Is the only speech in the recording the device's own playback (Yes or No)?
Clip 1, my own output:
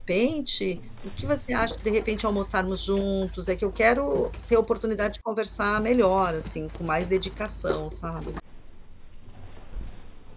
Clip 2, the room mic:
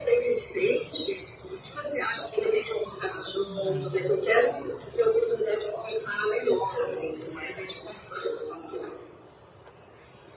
No